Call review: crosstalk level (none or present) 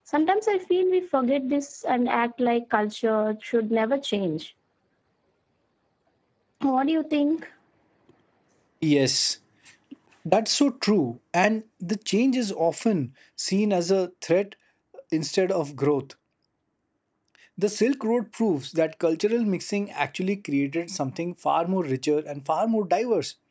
none